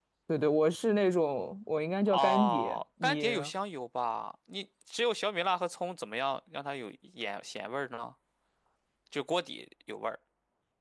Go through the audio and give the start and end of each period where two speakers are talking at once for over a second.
2.1-3.5

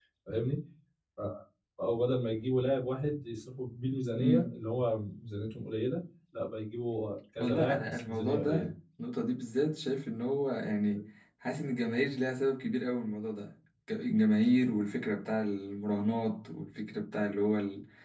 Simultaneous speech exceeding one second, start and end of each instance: 7.4-8.7

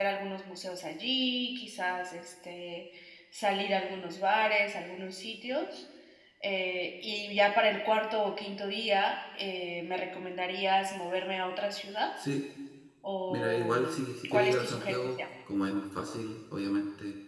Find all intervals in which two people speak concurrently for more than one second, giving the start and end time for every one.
13.3-15.1

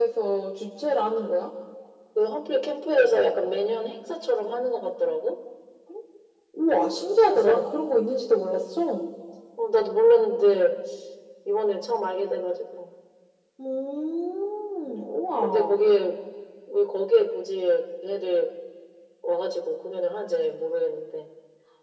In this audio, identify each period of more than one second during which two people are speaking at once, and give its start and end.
none

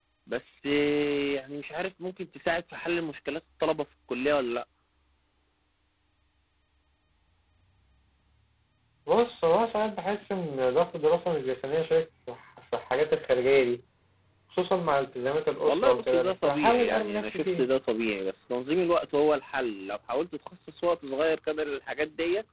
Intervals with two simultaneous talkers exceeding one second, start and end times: 15.7-17.7

